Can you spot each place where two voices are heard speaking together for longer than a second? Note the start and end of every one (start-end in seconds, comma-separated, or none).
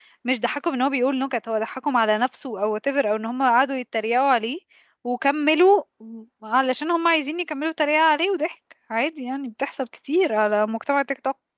none